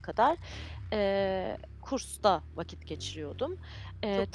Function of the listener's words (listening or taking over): taking over